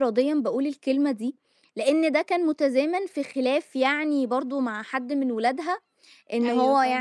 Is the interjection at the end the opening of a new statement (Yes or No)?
No